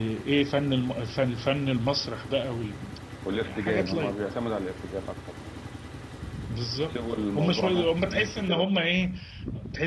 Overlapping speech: Yes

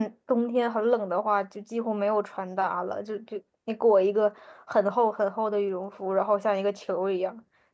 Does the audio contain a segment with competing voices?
No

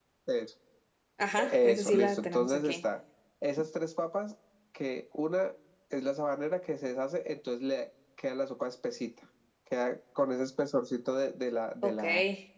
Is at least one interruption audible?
Yes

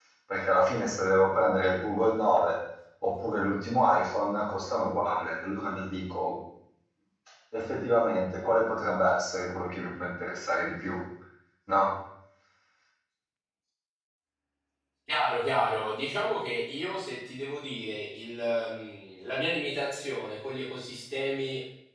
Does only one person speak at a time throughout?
Yes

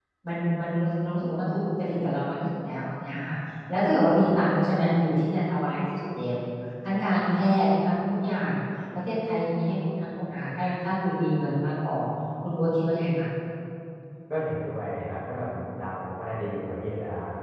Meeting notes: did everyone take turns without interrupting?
Yes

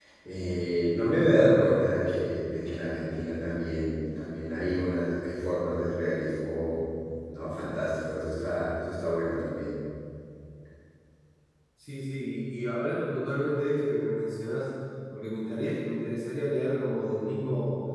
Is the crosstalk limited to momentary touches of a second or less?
Yes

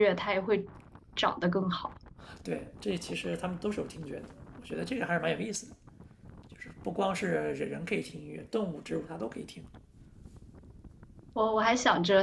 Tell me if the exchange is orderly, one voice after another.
Yes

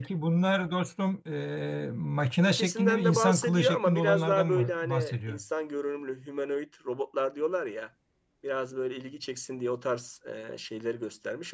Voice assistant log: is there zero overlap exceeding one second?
No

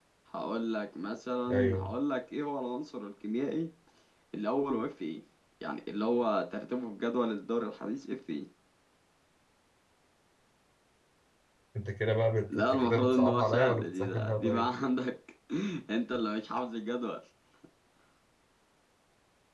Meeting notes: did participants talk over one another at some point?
Yes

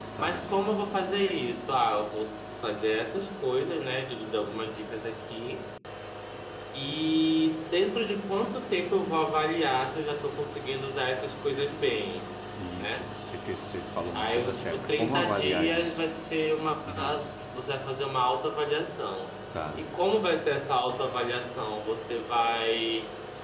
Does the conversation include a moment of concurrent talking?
Yes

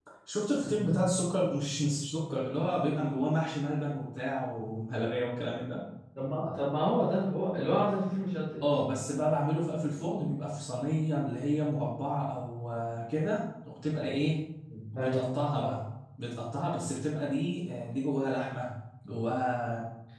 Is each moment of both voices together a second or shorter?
Yes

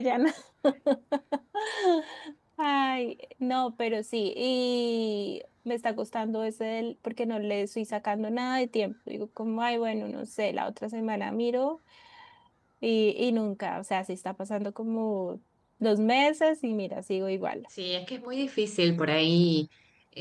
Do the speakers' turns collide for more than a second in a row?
No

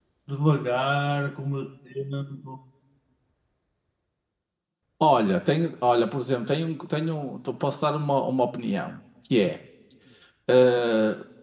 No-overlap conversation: Yes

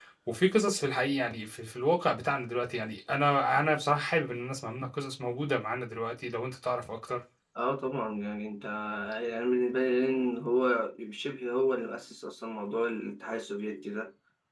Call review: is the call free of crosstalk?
Yes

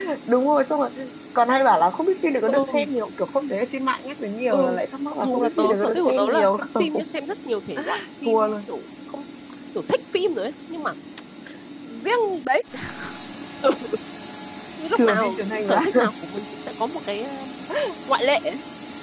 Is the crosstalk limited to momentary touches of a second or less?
No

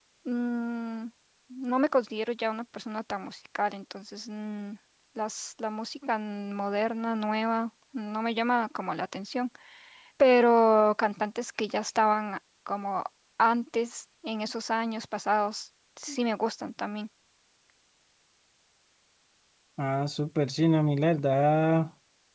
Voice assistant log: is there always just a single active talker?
Yes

